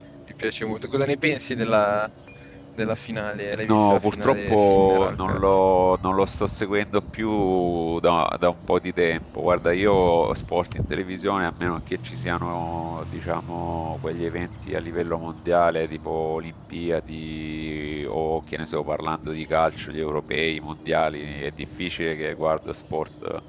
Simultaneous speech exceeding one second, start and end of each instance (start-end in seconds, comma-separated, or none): 3.7-5.4